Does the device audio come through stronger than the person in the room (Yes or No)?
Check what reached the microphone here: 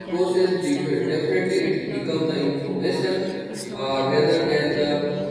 No